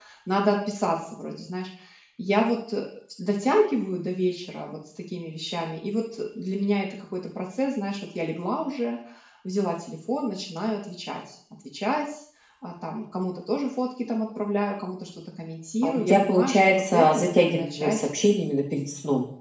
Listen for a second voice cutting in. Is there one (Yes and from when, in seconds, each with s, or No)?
Yes, from 15.8 s